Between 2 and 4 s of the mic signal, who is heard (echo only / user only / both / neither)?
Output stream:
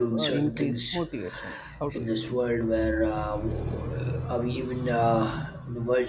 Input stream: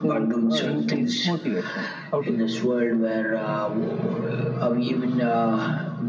echo only